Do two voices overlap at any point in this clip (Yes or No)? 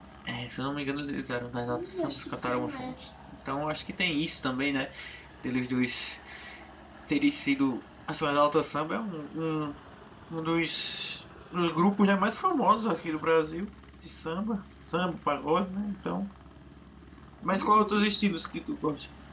Yes